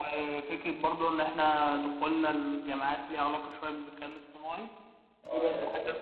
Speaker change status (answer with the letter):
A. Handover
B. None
A